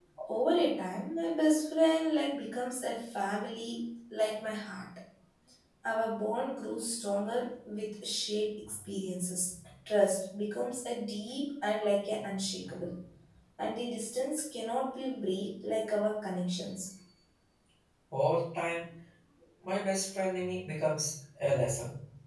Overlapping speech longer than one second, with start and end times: none

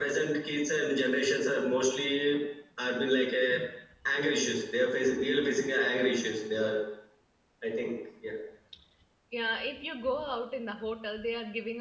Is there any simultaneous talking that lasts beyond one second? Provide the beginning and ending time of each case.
none

